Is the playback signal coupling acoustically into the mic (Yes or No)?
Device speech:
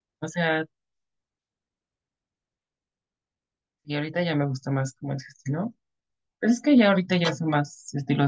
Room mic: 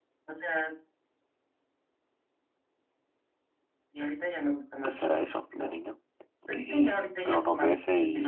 Yes